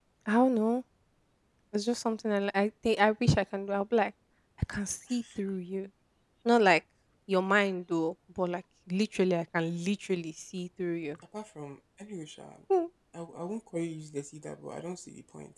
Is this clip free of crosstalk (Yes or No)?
Yes